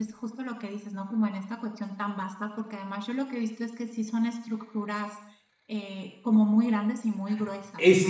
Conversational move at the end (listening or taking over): taking over